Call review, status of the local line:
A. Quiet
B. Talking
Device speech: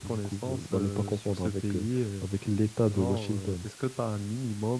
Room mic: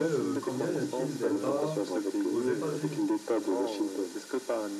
B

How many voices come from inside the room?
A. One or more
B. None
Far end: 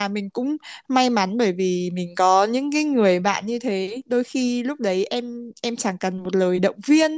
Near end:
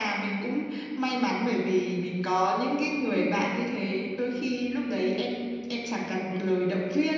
B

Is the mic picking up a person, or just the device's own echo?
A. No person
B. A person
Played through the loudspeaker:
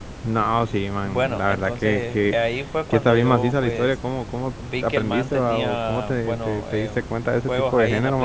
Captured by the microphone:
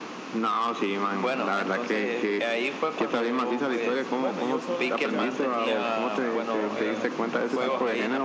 B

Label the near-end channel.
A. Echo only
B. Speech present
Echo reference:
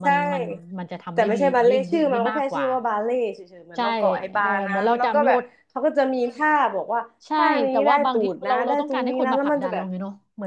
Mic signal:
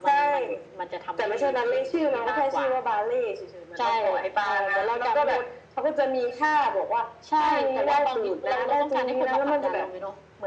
A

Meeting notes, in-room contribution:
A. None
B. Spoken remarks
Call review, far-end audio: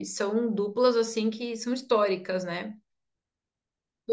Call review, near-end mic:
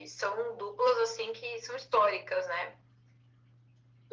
A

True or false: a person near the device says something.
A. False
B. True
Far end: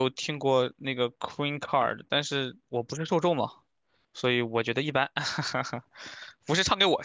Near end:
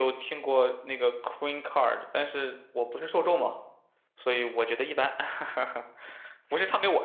A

